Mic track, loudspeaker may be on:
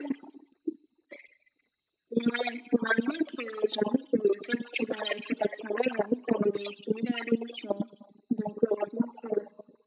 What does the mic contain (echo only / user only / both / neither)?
echo only